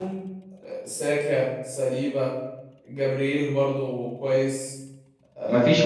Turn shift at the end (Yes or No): No